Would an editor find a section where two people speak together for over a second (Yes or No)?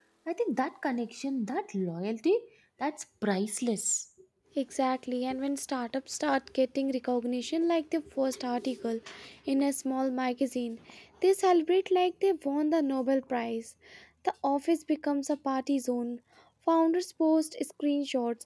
No